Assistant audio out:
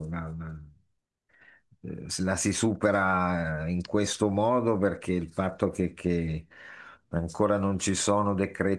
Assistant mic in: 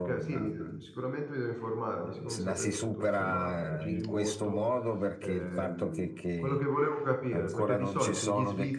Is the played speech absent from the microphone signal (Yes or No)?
No